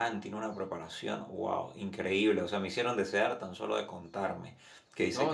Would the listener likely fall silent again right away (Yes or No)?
No